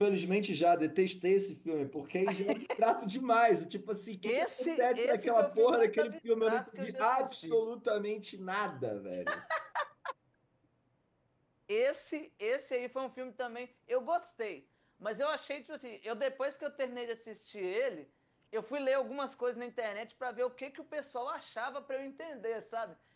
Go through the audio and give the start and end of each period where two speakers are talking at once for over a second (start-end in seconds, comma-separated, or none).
4.2-7.6